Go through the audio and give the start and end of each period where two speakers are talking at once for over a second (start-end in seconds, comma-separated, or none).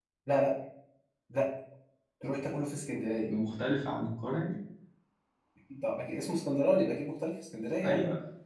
none